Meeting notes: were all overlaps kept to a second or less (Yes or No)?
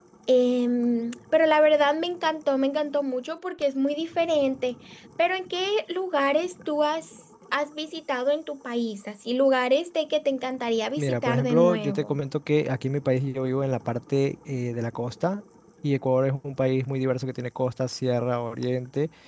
No